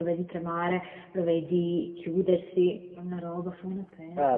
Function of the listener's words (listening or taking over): taking over